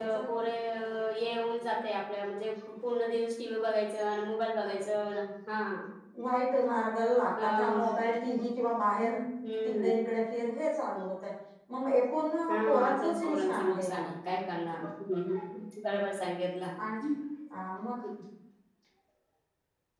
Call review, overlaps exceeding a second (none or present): present